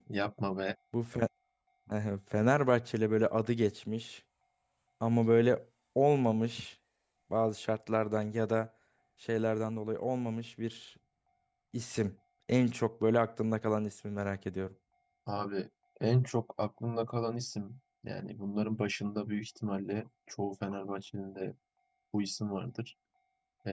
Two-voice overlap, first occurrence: none

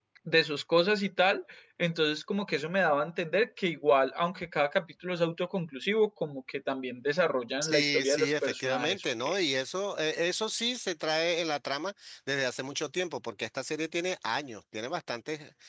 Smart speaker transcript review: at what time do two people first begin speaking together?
8 s

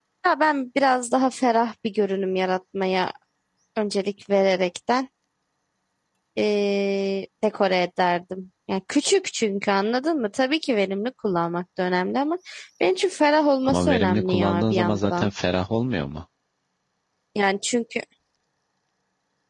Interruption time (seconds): 14 s

